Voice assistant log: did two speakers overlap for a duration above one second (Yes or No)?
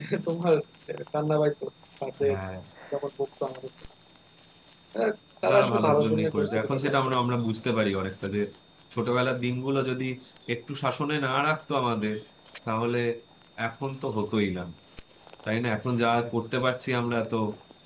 Yes